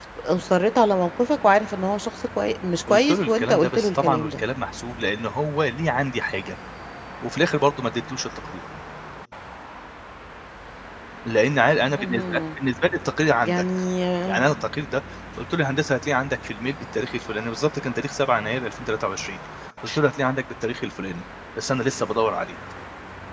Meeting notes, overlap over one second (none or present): present